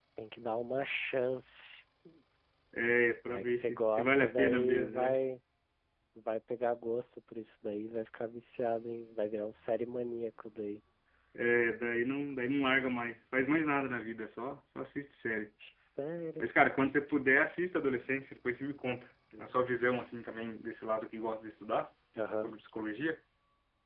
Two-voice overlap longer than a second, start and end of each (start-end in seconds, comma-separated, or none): 3.3-5.2